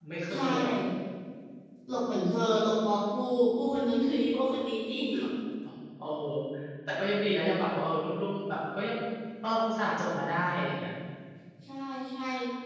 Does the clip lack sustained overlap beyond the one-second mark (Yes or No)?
Yes